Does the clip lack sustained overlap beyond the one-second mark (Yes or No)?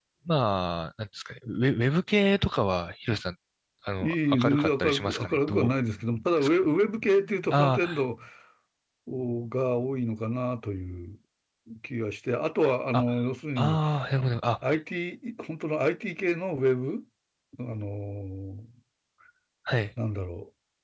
No